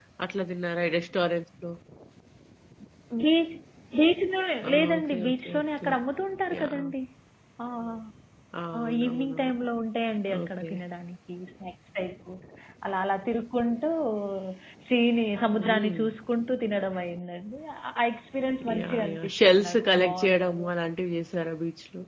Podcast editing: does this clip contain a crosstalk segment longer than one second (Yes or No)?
Yes